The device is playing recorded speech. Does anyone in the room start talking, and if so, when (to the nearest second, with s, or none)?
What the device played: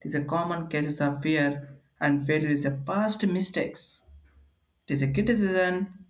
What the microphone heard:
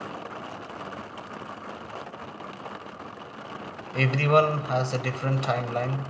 4 s